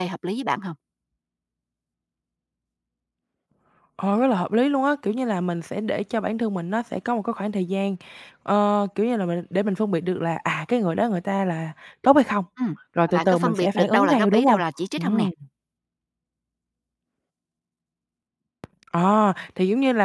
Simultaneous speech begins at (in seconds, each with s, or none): 13.1 s